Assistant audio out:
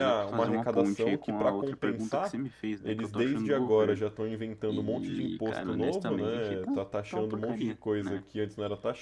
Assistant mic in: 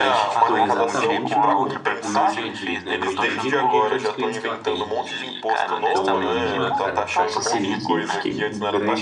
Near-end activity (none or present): present